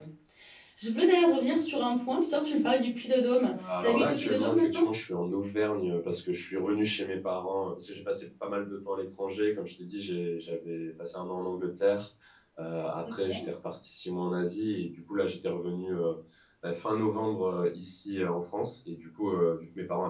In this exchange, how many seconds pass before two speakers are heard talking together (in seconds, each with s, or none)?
3.5 s